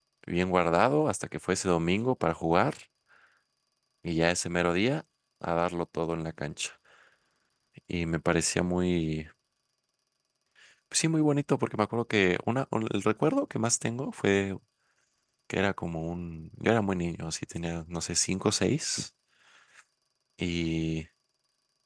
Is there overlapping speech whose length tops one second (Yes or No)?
No